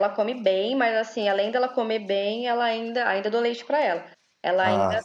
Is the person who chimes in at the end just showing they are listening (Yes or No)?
Yes